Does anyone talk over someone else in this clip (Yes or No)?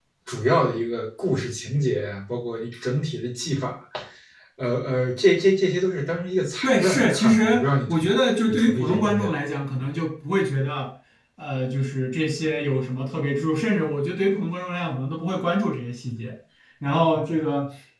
Yes